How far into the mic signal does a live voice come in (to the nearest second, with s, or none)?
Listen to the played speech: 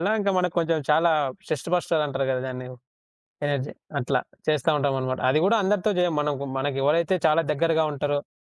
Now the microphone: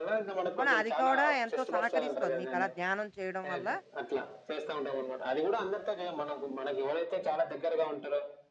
1 s